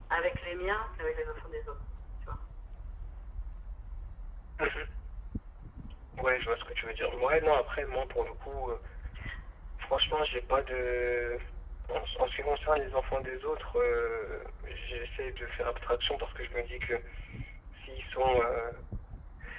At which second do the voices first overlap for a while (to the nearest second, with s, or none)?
none